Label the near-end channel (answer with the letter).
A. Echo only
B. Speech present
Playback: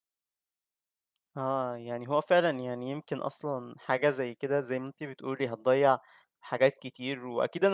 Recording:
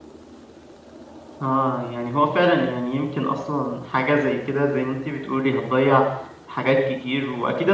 A